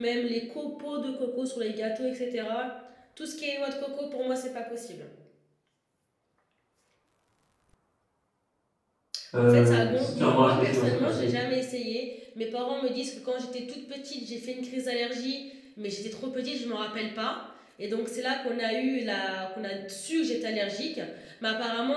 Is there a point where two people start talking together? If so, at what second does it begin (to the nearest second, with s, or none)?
9 s